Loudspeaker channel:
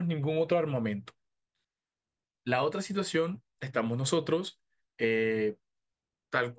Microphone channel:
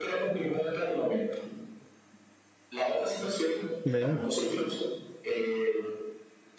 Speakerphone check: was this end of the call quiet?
No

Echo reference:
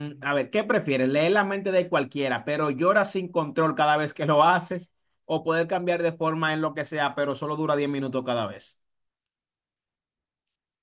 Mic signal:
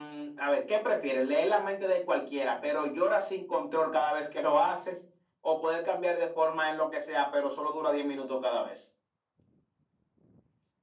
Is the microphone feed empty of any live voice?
Yes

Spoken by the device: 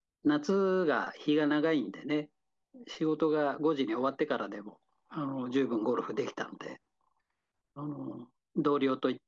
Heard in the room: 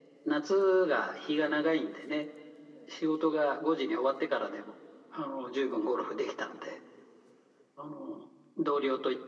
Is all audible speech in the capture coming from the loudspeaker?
Yes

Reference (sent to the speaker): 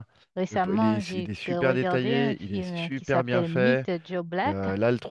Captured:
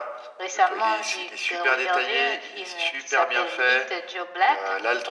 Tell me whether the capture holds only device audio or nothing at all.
Yes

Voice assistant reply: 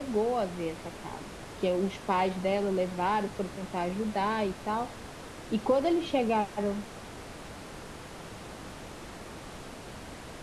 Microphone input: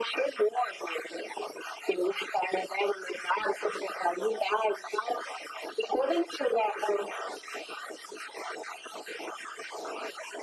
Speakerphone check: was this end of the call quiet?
Yes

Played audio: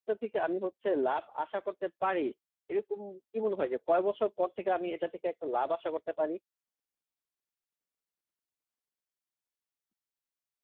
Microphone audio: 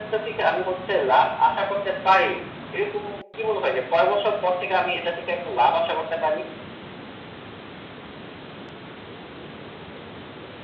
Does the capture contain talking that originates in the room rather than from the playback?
No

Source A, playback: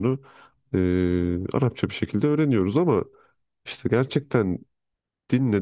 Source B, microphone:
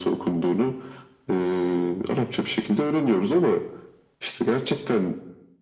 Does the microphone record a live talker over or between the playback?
No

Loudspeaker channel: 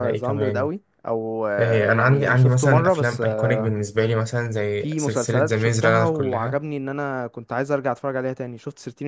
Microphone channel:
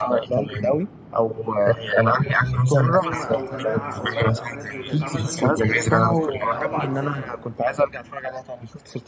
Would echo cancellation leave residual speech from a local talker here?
Yes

